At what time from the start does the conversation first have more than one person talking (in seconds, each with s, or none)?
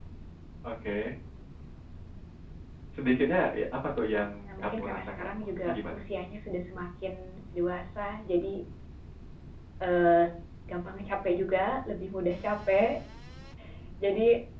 4.5 s